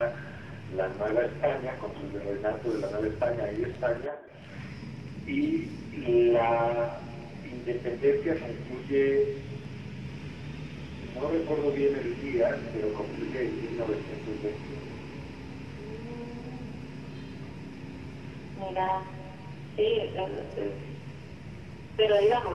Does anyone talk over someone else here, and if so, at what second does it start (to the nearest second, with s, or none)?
none